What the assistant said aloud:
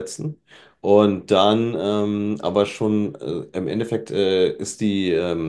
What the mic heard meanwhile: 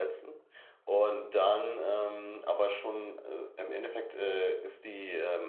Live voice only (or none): none